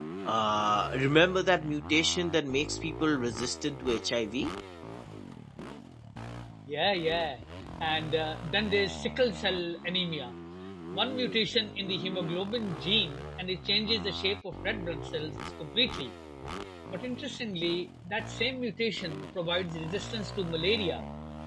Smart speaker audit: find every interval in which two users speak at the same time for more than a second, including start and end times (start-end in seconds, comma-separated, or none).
none